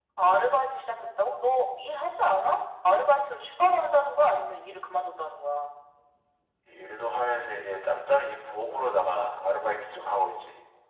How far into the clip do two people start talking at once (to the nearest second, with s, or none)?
none